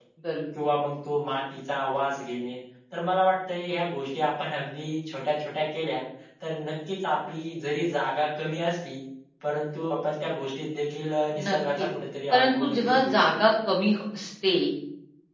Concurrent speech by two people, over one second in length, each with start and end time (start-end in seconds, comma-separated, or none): 12.3-13.5